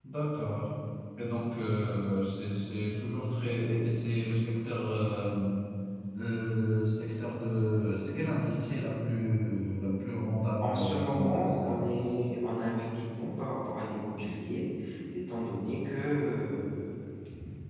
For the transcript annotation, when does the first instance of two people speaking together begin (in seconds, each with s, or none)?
10.6 s